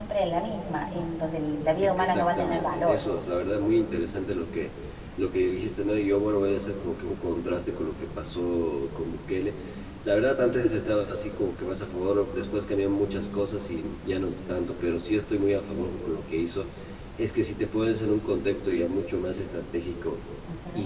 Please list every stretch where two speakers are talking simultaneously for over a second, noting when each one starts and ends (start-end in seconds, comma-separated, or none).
1.8-3.0